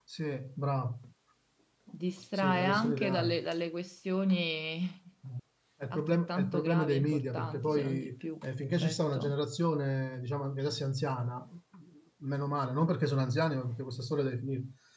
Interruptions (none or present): present